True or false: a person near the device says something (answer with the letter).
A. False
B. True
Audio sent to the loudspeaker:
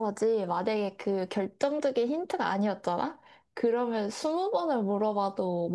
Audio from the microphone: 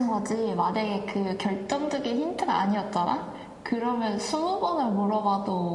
A